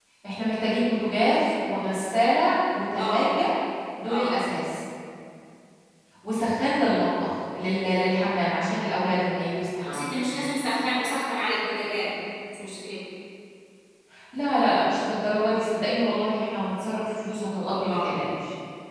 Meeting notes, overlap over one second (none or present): none